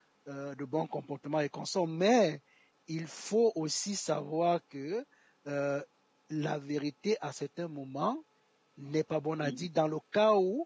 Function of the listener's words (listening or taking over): listening